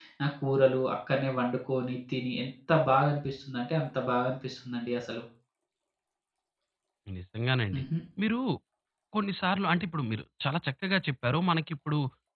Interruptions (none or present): none